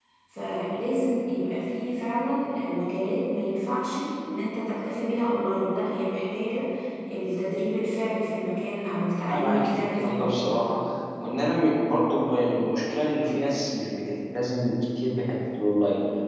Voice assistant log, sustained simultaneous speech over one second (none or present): present